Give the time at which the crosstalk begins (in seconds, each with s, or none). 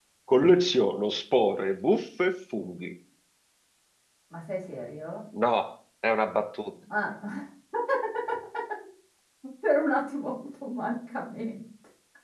none